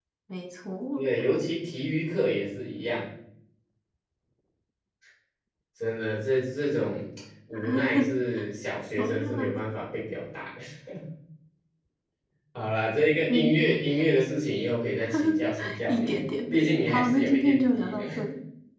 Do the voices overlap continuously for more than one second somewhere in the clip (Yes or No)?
Yes